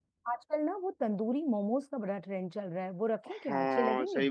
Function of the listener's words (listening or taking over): taking over